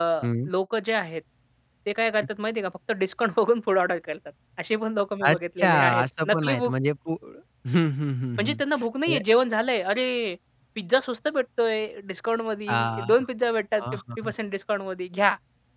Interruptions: present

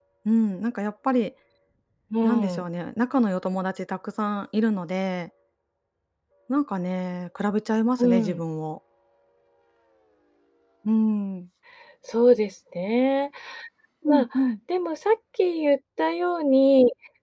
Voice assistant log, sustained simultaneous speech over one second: none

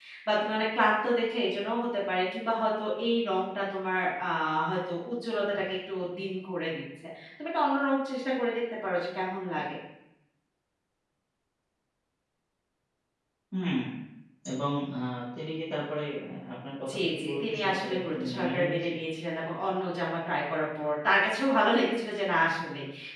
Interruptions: present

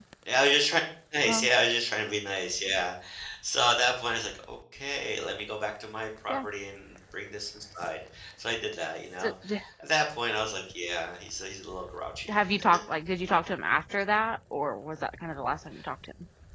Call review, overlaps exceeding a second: none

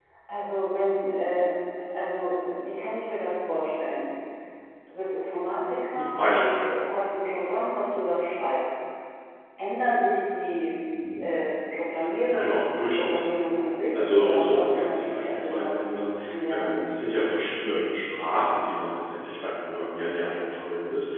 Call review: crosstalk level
present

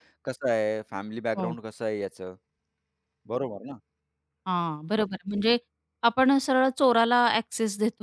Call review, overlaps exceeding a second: none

